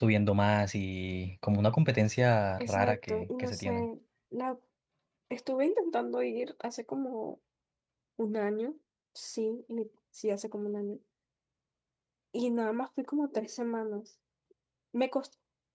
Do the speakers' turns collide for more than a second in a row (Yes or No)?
Yes